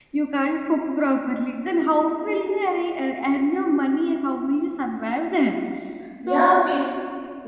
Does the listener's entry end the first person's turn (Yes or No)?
Yes